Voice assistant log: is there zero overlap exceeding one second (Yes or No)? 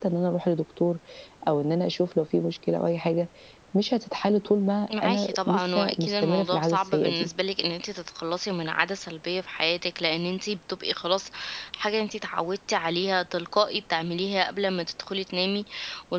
No